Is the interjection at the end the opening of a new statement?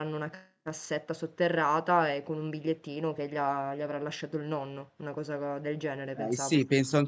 Yes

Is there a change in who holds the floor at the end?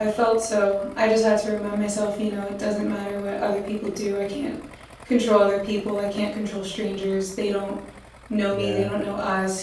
No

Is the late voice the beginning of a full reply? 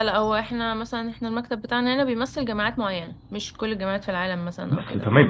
Yes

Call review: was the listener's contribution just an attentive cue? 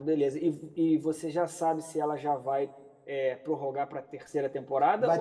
No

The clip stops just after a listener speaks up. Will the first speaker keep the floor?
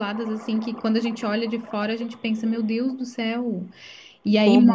Yes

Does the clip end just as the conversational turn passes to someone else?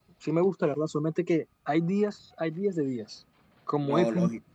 No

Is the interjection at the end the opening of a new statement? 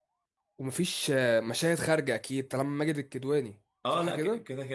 Yes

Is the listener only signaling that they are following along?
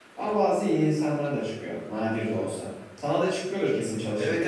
No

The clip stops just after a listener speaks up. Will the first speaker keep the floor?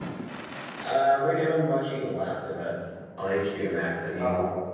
No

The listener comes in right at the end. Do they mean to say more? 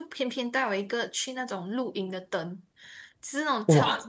No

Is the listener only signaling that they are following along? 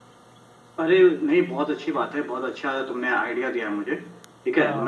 Yes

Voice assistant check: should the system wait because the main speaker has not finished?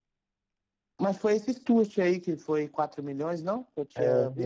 No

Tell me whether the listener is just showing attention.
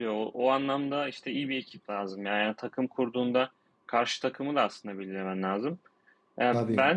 Yes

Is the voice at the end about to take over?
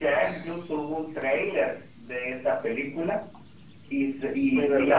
No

